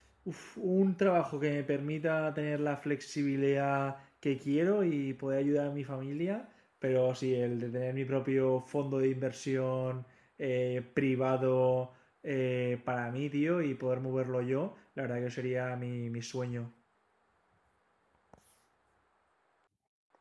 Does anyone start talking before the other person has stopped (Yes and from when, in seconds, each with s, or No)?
No